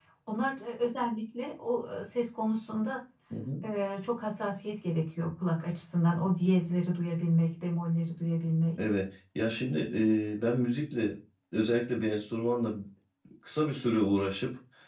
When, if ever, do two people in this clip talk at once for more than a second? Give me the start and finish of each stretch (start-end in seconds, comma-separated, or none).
none